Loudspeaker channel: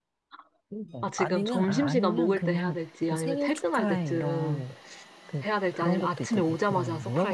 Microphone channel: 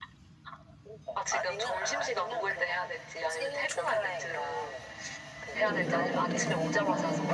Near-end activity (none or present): present